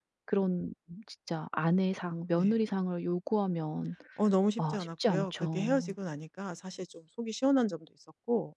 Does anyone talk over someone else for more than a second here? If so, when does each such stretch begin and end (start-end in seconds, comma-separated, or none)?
4.6-5.9